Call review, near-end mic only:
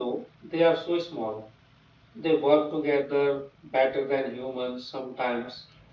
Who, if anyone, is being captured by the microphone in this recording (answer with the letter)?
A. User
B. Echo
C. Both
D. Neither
B